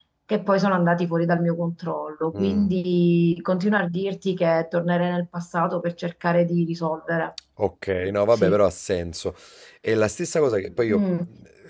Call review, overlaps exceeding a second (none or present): none